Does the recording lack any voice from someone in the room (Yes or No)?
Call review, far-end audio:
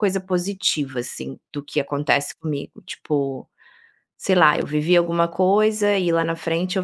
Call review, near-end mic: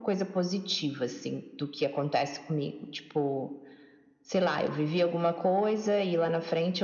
Yes